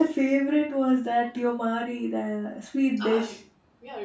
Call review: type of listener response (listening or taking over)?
taking over